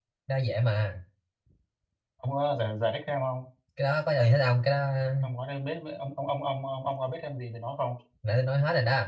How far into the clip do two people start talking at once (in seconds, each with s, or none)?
none